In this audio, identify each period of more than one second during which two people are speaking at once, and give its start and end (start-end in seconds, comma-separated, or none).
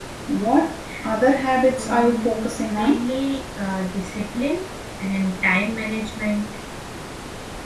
1.8-3.0